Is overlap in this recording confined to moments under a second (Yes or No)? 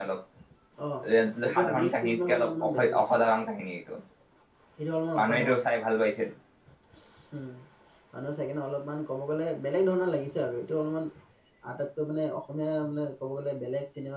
No